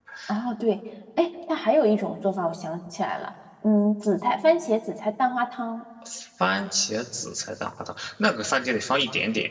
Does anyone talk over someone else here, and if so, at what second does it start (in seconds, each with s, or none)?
none